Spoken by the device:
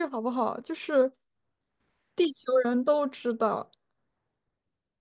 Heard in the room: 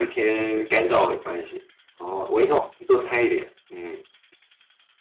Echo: none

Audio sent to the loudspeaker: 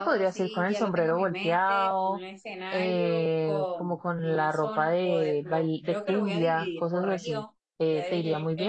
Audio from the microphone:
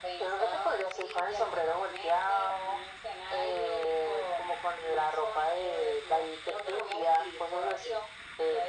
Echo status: present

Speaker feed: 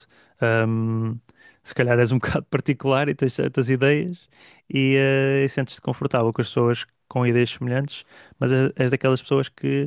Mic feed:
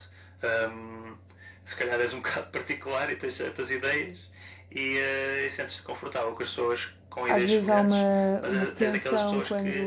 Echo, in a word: present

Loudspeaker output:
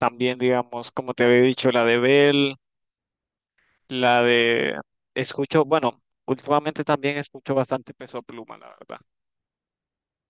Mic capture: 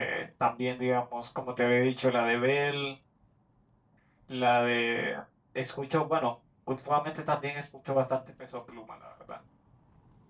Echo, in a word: present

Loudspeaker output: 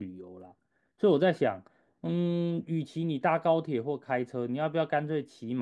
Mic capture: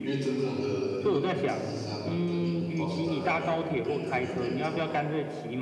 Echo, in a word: present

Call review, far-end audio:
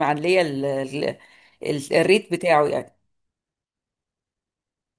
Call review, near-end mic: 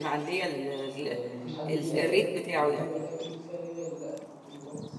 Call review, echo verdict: present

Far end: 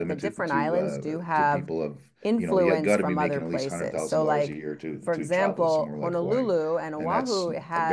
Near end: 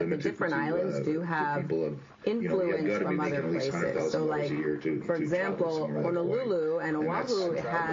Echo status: present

